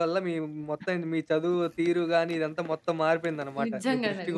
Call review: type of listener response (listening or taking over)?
taking over